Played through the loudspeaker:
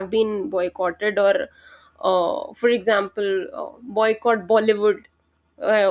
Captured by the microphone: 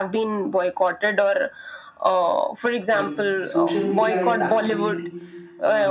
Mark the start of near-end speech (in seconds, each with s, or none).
2.9 s